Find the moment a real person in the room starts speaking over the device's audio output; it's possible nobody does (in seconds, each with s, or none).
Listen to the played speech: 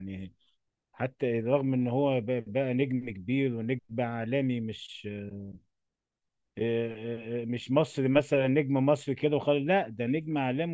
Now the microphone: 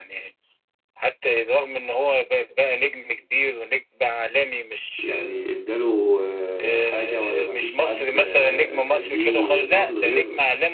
5.0 s